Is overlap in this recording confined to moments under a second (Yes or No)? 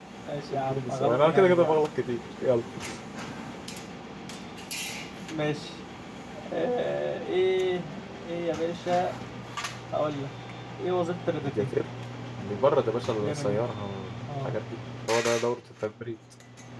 No